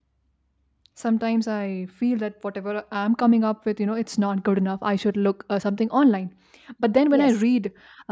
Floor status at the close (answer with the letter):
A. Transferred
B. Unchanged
B